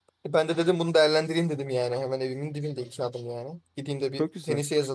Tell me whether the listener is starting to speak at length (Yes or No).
No